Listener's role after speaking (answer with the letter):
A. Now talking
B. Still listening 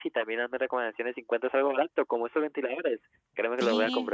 A